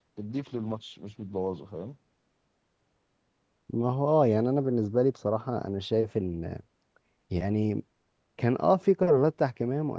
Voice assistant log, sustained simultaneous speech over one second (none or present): none